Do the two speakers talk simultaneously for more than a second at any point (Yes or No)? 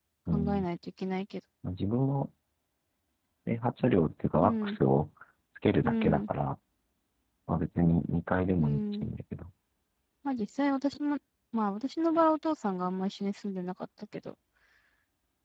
No